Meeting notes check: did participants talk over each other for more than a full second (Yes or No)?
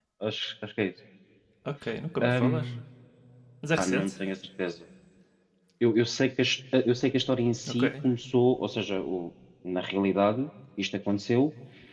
No